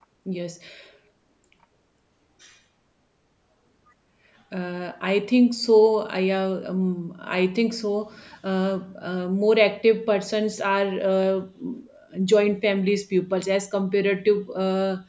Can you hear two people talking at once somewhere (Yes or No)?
No